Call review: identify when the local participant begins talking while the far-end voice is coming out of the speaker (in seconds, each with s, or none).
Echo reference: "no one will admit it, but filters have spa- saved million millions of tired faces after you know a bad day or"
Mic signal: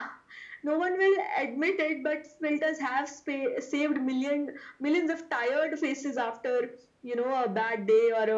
none